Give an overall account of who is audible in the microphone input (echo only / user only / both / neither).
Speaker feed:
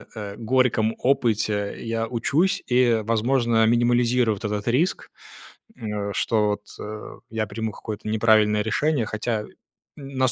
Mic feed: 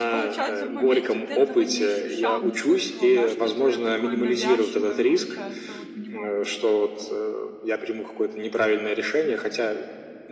both